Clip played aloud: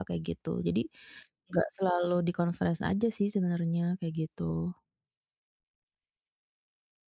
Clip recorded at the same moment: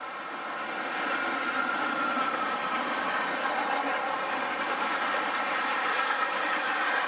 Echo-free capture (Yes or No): Yes